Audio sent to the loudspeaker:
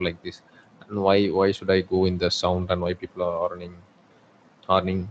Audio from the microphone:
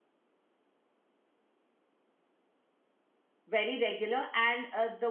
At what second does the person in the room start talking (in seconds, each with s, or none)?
3.5 s